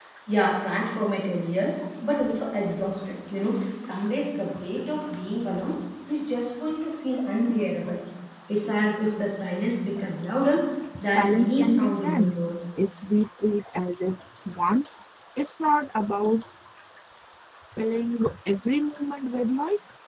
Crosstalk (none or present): present